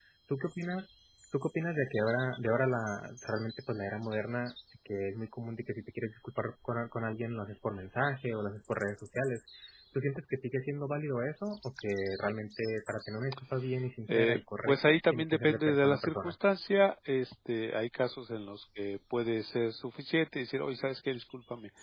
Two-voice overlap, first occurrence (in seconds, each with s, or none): 14.1 s